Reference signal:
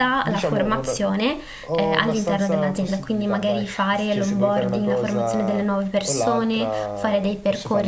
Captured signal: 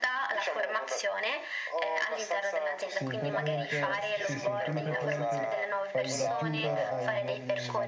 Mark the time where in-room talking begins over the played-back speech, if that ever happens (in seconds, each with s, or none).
3.0 s